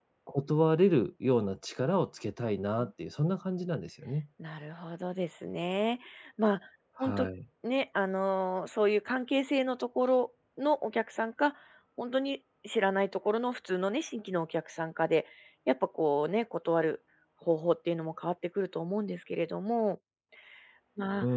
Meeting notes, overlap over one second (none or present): none